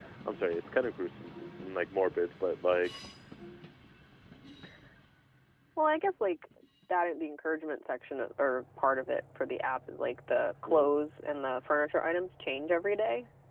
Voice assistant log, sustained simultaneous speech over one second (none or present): none